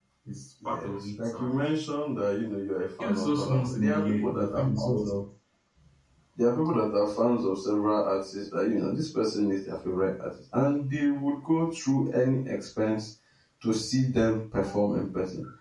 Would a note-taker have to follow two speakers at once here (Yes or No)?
Yes